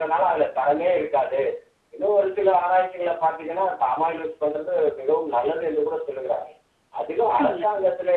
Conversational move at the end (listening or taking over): listening